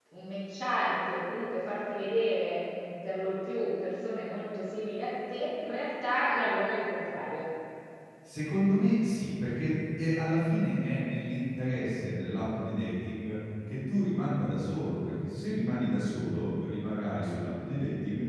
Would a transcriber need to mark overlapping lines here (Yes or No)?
No